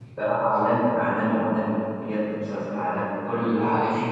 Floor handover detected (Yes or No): No